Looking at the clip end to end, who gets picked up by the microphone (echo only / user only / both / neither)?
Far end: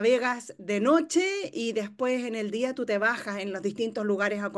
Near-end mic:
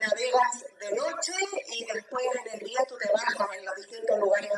echo only